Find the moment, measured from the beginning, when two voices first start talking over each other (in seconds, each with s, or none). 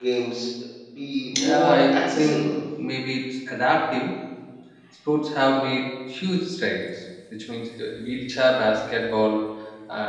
1.4 s